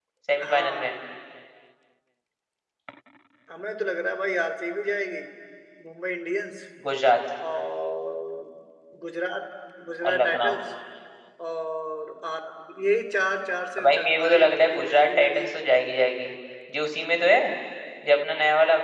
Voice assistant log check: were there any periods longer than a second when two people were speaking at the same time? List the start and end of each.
13.8-15.5

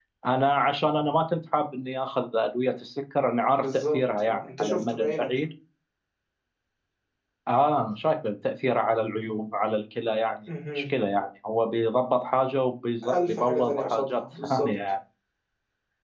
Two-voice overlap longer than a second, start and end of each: 3.5-5.4, 13.1-14.8

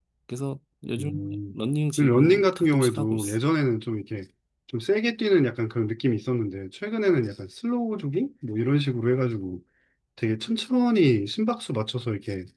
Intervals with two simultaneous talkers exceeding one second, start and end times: 2.0-3.4

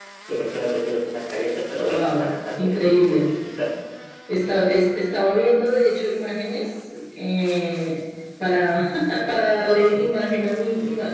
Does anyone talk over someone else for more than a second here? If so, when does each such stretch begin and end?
1.9-3.2

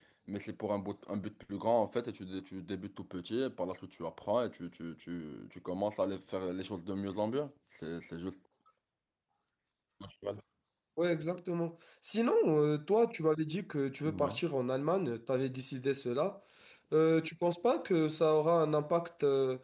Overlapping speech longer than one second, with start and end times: none

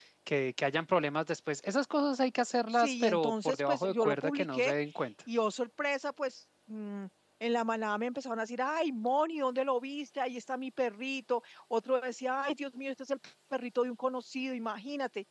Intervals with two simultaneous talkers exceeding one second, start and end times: 2.8-4.7

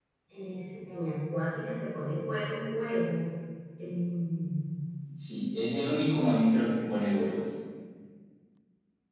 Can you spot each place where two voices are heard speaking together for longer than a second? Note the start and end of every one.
none

